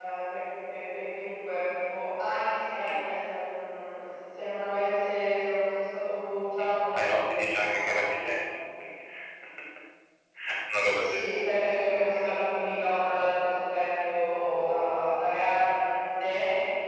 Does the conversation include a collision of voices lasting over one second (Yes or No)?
Yes